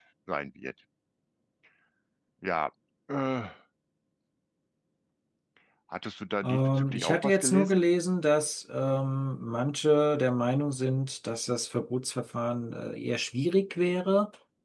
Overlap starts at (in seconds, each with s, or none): 6.4 s